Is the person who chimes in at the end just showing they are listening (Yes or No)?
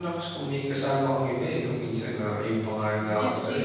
No